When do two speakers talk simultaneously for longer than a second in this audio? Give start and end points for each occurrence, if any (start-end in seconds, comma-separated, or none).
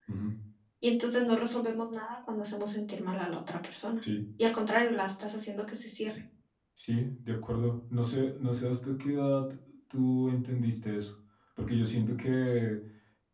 none